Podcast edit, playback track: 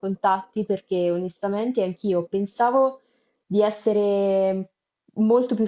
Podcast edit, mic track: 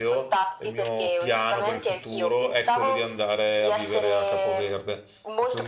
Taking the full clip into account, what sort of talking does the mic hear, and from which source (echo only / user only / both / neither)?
both